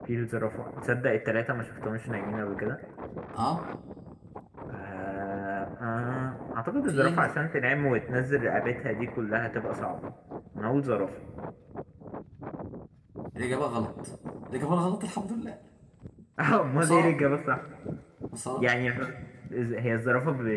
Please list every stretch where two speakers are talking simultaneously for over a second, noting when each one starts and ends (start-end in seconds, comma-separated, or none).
none